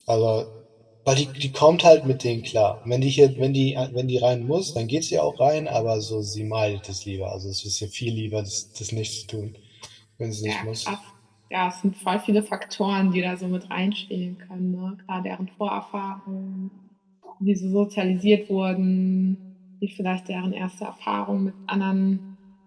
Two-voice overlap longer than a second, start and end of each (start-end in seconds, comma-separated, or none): none